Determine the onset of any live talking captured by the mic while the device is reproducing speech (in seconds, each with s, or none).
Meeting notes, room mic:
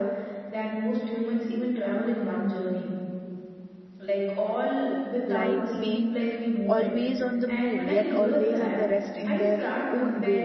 5.3 s